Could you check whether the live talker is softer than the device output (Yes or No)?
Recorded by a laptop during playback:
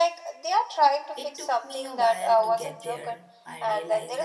Yes